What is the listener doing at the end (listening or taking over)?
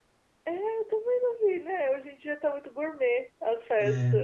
listening